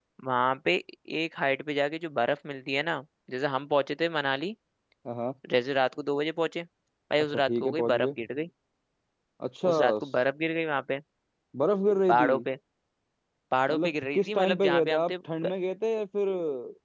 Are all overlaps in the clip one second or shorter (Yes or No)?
No